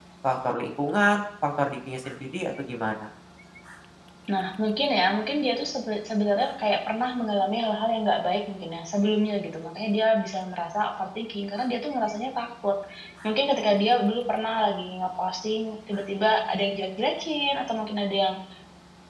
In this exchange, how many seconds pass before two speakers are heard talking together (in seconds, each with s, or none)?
none